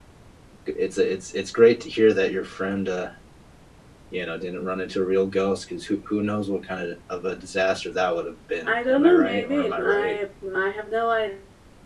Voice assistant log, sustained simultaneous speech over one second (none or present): present